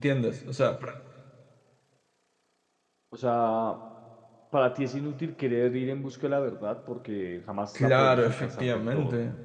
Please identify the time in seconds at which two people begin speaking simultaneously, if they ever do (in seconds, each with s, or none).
7.8 s